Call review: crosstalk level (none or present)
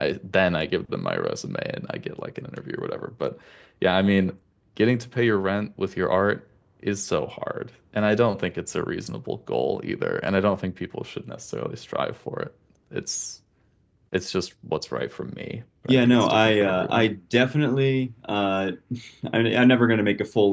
present